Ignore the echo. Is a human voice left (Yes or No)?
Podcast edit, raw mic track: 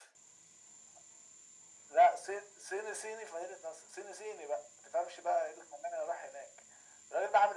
No